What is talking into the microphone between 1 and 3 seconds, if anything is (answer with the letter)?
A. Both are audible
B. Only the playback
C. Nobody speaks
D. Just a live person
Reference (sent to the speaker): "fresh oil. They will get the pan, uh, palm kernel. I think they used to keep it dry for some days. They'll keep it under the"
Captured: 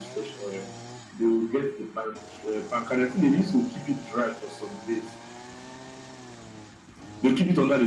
B